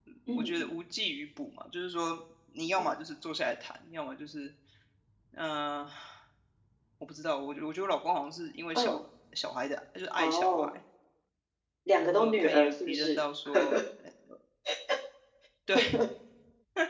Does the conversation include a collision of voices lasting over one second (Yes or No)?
Yes